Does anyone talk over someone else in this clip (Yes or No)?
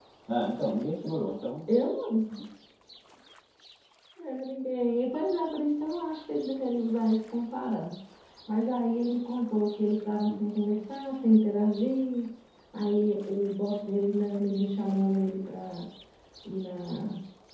No